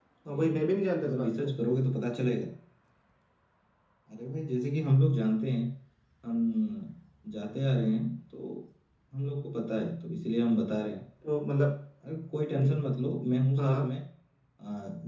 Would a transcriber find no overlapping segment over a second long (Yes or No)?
Yes